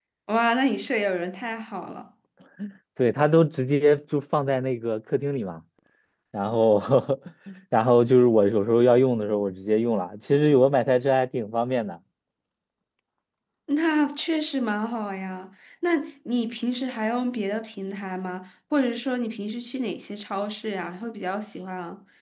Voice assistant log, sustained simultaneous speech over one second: none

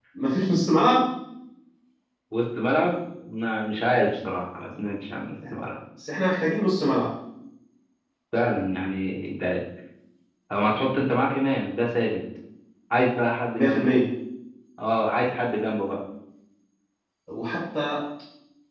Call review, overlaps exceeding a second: none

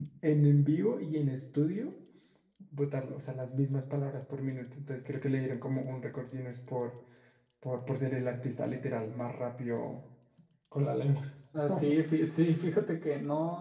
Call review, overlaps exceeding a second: none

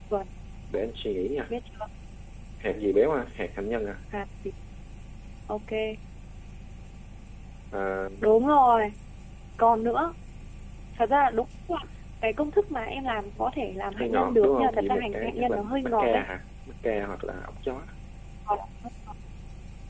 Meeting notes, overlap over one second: present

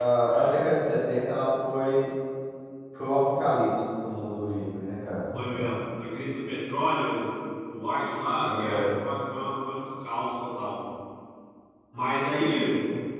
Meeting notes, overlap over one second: none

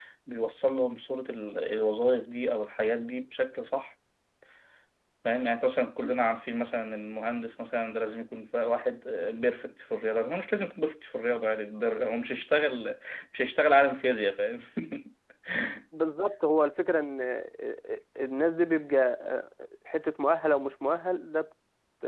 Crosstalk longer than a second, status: none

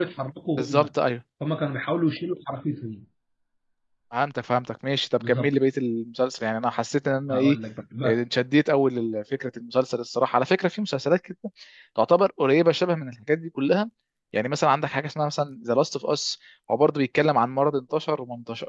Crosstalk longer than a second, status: none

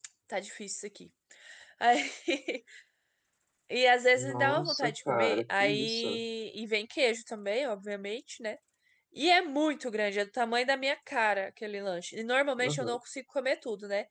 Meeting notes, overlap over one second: present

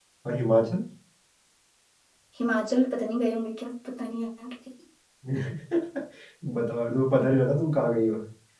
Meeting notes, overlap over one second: none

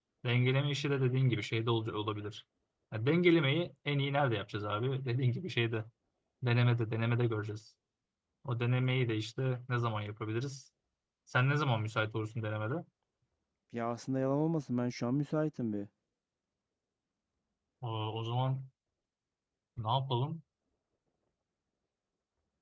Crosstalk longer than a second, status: none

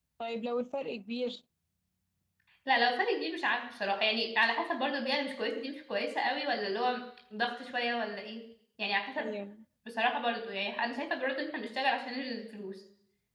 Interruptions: none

